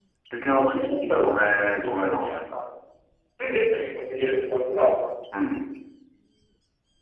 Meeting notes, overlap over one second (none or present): present